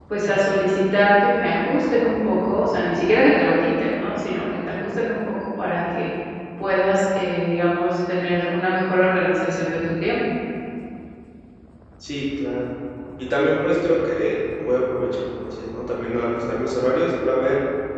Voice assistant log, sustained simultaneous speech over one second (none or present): none